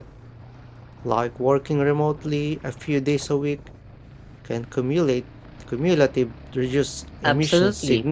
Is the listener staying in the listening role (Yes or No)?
No